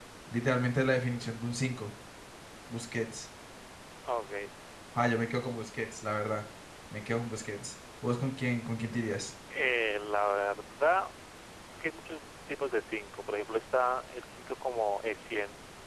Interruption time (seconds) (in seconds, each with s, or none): none